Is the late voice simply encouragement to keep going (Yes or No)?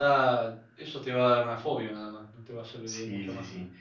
No